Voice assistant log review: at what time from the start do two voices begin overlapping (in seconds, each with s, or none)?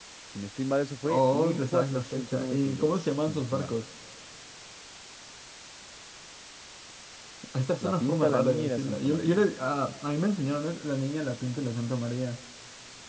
1.0 s